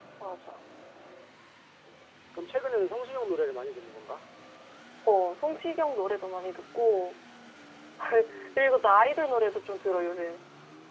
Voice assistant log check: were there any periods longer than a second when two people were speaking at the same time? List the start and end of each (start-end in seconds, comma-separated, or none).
none